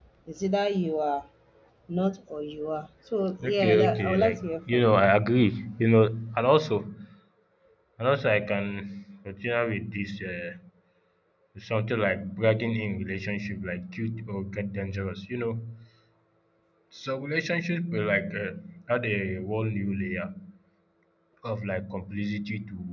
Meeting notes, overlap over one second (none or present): present